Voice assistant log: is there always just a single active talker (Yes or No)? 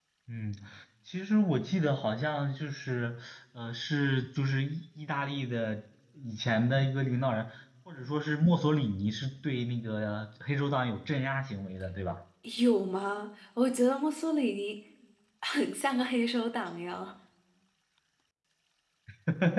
Yes